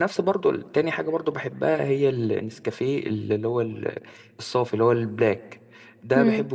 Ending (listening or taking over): listening